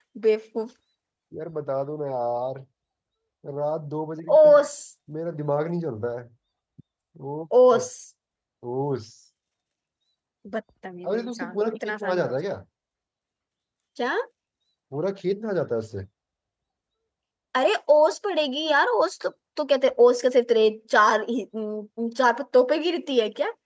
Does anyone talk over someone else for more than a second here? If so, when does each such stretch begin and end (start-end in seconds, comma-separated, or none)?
11.1-12.3